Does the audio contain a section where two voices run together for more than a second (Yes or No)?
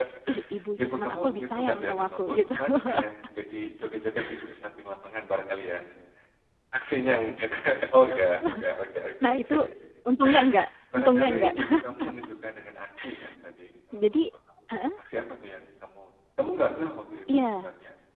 Yes